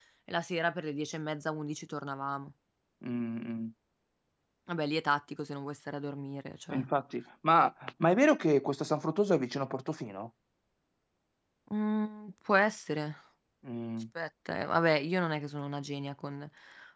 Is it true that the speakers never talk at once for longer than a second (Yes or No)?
Yes